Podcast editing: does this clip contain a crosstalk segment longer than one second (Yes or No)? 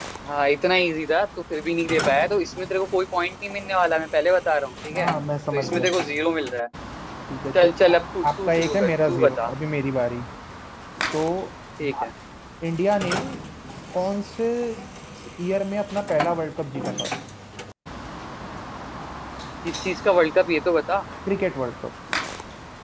Yes